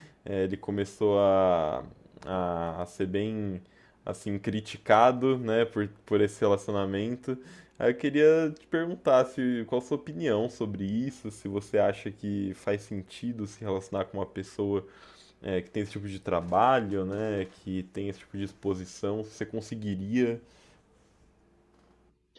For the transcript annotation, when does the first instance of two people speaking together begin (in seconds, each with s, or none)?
none